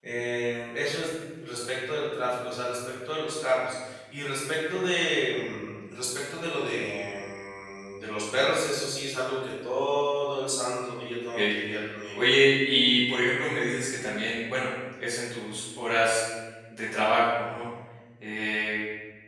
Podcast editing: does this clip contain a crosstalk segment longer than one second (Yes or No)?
No